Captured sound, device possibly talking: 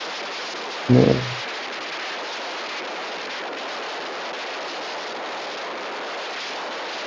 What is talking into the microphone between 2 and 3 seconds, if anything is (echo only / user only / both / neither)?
neither